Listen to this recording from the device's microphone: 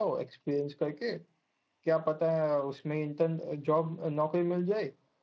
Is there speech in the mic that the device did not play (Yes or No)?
Yes